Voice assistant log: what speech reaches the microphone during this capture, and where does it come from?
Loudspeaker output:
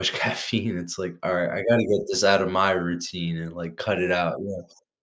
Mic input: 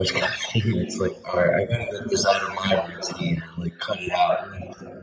echo only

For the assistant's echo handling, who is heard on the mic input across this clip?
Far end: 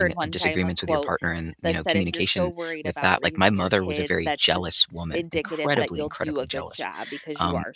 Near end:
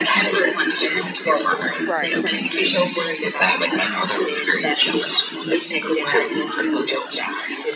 both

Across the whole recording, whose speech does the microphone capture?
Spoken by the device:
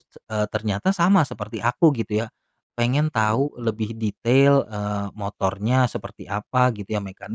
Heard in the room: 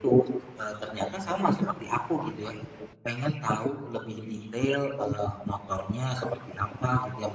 echo only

